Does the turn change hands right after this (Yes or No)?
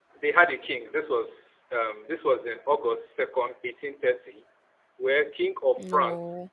No